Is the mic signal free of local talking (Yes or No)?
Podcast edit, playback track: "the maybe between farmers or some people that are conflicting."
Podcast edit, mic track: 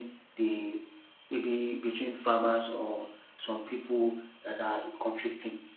Yes